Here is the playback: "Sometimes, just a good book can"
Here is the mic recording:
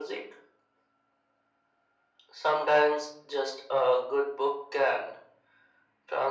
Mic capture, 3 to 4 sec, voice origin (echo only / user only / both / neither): echo only